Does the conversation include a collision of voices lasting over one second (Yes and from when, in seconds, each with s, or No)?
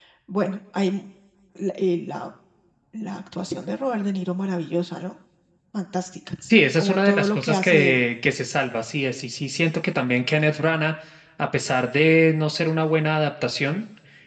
Yes, from 6.8 s